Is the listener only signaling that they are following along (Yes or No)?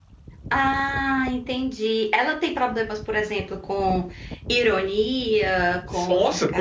No